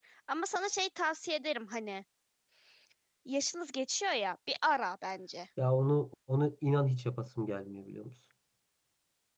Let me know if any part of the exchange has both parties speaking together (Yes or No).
No